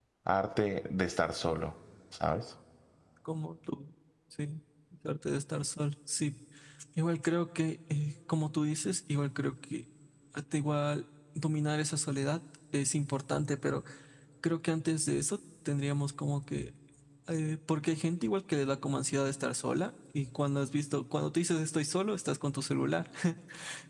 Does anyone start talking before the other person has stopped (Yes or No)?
No